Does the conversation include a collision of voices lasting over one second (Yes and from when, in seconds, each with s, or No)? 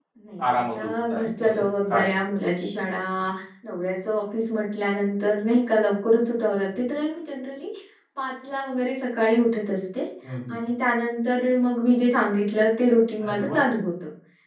Yes, from 0.5 s